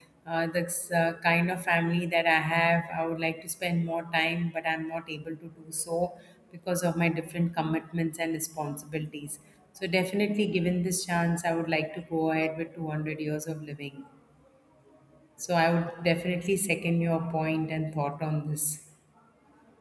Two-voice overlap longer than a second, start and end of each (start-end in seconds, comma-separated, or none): none